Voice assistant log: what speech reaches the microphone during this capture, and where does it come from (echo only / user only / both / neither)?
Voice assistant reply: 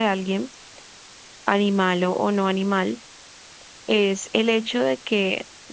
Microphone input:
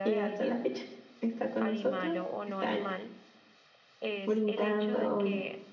both